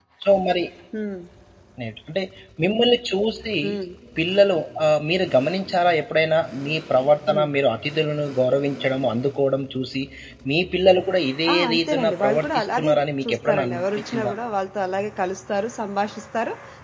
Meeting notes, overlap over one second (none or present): present